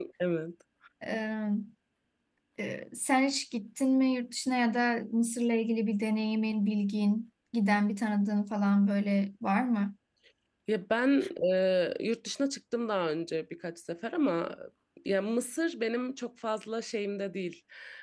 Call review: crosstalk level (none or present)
none